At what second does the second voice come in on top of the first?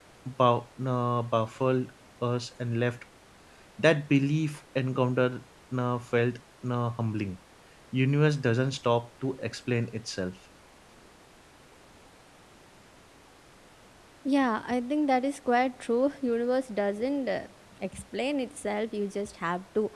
none

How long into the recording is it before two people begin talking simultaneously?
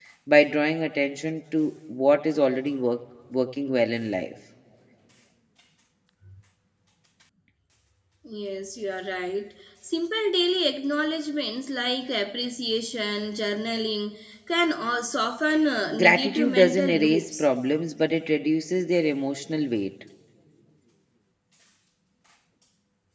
16 s

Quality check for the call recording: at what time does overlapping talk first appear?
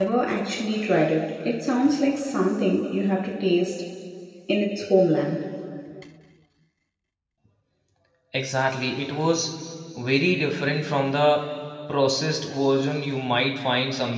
none

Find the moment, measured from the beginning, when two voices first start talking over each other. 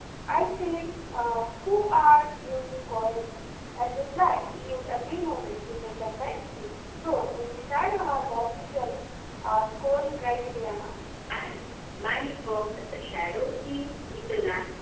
none

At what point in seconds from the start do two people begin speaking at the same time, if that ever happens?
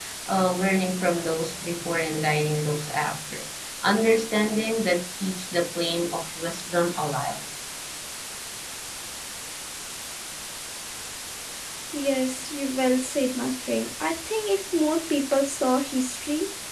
none

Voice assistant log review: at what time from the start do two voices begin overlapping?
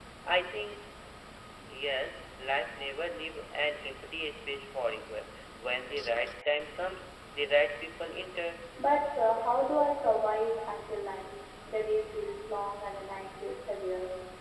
none

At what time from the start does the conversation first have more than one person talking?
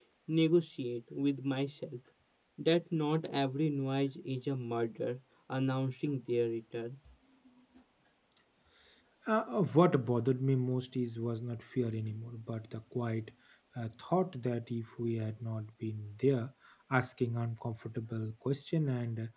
none

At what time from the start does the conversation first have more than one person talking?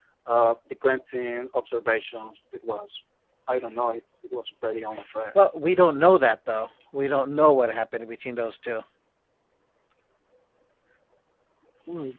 none

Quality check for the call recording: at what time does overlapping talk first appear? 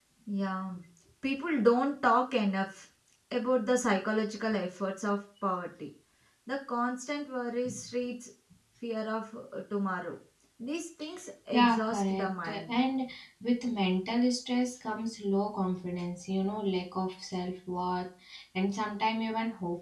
12 s

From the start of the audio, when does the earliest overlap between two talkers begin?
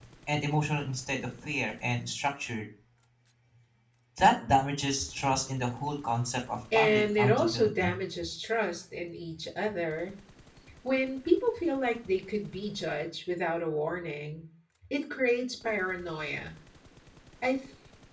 7 s

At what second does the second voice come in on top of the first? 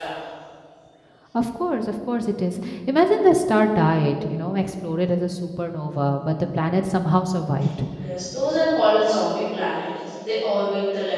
none

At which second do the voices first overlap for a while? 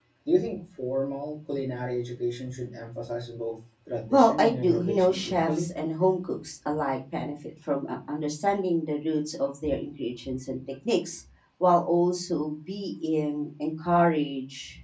4 s

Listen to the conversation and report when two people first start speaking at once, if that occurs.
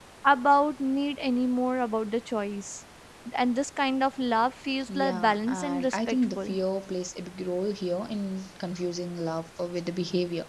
5 s

